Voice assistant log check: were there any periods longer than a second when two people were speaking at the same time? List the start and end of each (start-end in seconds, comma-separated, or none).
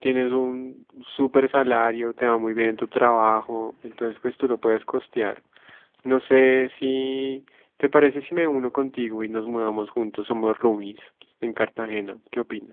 none